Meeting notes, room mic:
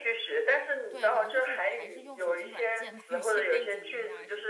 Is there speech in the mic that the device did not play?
Yes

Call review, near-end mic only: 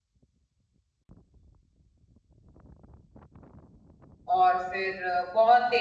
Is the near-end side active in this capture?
Yes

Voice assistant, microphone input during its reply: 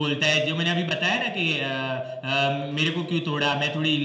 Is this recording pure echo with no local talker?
Yes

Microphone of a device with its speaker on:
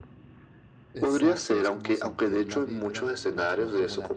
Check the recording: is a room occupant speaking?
Yes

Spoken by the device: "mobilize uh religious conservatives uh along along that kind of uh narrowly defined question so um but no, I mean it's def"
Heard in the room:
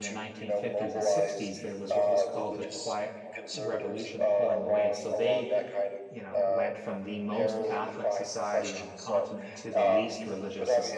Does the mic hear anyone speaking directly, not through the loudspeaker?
Yes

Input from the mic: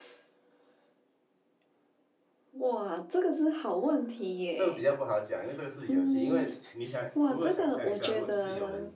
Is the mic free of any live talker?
No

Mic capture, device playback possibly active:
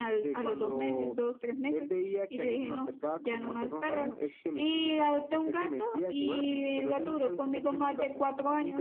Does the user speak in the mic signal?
No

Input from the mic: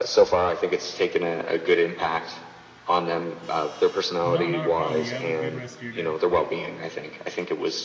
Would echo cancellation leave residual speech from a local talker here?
Yes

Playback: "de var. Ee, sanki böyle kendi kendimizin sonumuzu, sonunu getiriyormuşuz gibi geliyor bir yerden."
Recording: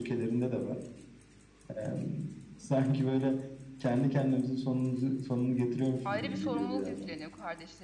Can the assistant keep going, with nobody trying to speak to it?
No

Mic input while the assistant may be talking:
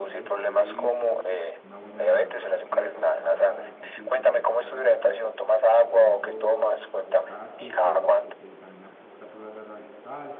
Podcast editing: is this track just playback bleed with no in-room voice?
No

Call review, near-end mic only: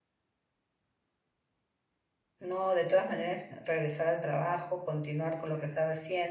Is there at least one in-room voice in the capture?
Yes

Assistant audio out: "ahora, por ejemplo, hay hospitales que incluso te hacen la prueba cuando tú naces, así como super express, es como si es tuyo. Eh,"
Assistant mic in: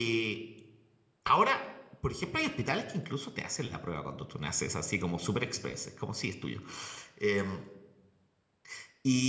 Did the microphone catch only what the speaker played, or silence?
Yes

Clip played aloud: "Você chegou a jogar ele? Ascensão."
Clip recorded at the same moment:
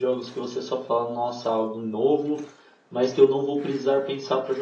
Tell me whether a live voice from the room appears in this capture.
Yes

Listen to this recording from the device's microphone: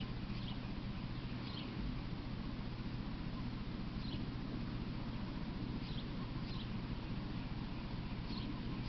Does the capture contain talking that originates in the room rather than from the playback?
No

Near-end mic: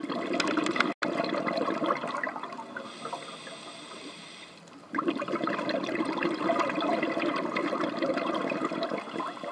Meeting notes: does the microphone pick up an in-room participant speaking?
No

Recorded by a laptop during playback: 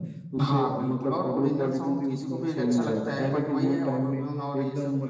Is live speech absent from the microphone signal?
No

